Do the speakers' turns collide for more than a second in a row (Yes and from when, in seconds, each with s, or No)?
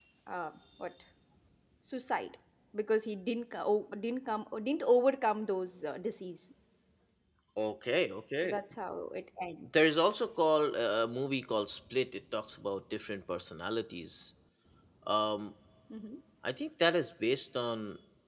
No